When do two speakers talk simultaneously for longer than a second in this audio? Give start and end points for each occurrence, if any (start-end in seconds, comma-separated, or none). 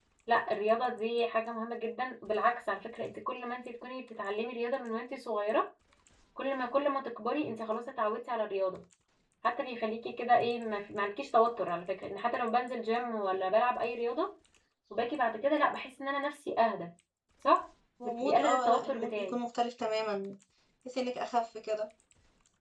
18.0-19.4